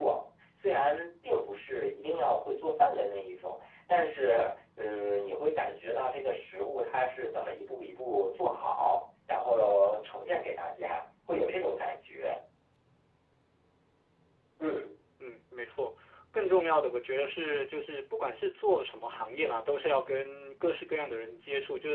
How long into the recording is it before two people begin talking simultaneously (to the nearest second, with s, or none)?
none